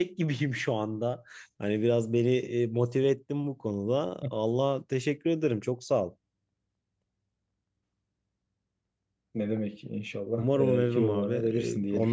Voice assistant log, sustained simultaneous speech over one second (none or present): present